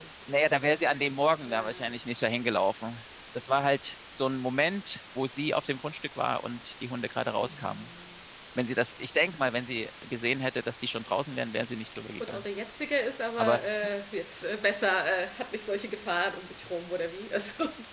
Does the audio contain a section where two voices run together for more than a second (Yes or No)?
No